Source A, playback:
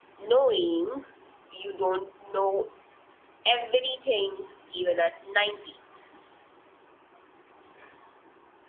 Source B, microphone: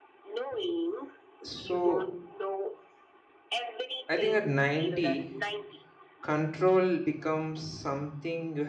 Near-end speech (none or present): present